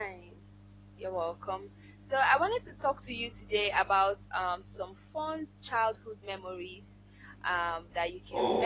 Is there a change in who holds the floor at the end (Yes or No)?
No